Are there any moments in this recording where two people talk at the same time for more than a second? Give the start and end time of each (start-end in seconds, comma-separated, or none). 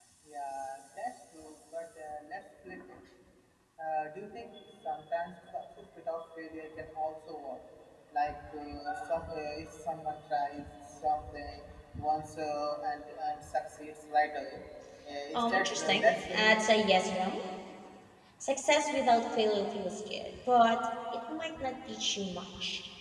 15.3-16.7